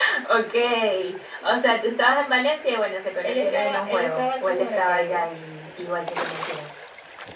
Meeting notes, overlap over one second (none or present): present